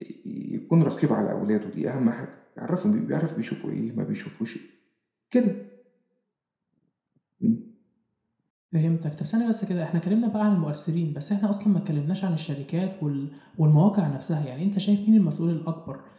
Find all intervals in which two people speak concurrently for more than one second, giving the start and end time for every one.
none

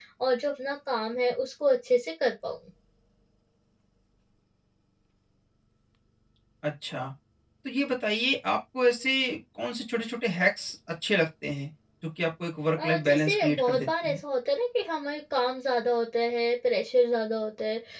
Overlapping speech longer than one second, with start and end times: 12.8-14.2

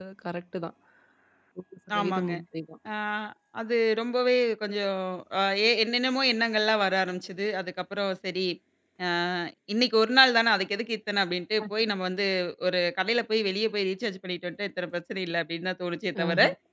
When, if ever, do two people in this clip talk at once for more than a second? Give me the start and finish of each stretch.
none

